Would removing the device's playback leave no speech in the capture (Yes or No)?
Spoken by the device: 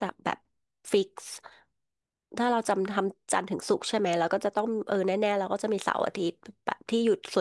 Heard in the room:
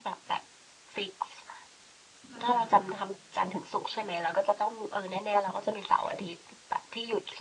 No